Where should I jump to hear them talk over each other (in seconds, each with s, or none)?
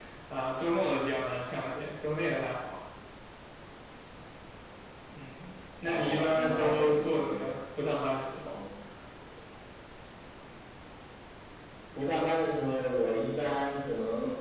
5.8 s